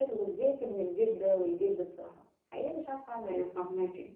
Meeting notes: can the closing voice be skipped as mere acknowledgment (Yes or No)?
No